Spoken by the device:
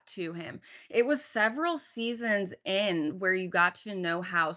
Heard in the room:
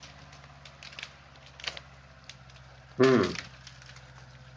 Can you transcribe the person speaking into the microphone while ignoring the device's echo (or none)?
Mm,